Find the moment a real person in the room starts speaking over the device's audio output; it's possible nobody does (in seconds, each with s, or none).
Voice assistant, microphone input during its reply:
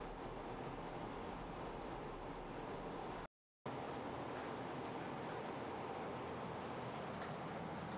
none